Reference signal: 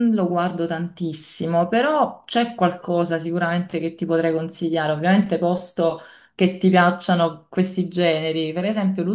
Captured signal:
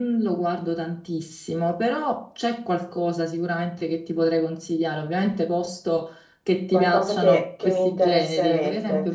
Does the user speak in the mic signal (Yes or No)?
Yes